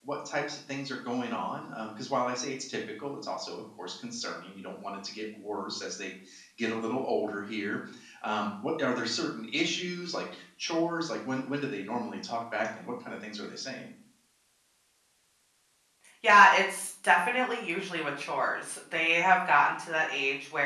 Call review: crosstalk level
none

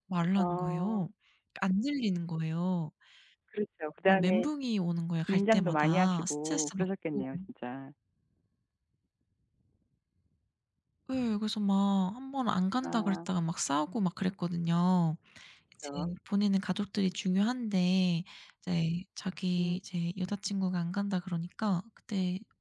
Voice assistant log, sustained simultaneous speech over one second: present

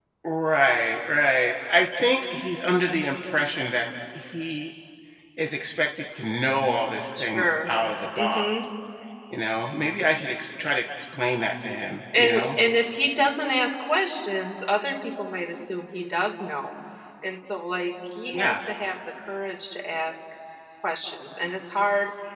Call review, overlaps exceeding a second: none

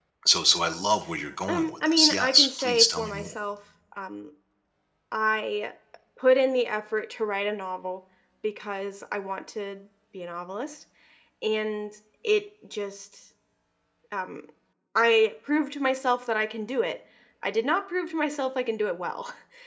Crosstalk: present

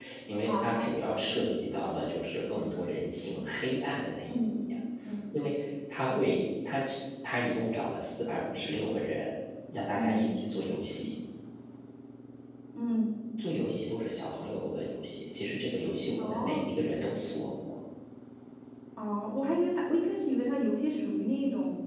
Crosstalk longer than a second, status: none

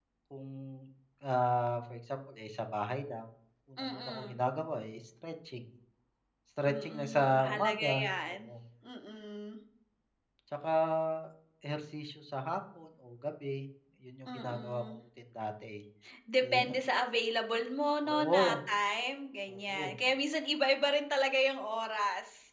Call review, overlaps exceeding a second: present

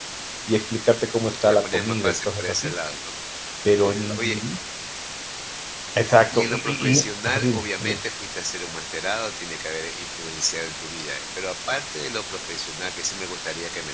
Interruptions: present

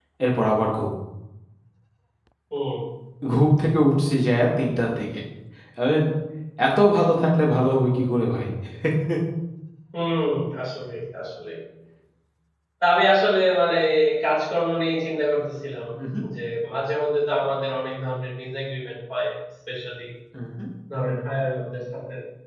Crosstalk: none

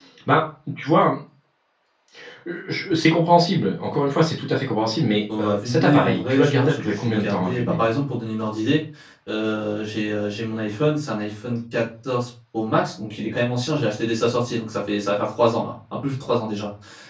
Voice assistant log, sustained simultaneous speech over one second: present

